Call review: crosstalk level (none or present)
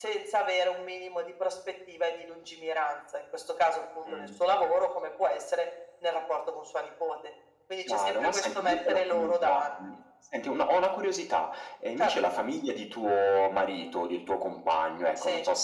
present